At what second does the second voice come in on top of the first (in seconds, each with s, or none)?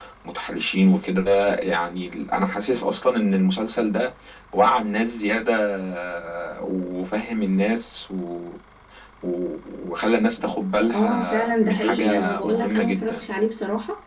10.9 s